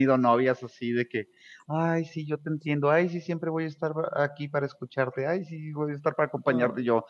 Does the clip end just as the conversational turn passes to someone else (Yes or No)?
No